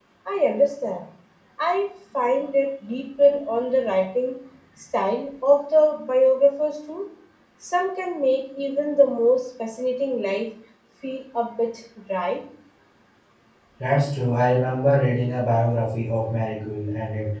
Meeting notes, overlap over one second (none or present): none